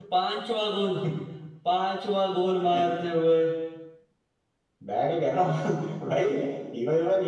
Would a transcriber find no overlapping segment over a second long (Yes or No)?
Yes